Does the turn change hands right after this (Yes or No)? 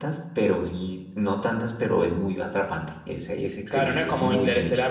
Yes